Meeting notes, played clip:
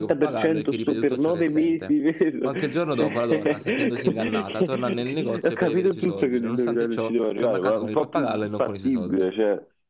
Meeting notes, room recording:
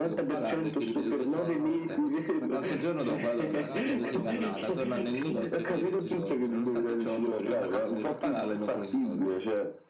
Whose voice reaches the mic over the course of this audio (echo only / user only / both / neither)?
both